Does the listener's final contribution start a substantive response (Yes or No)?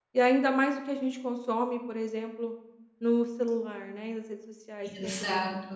No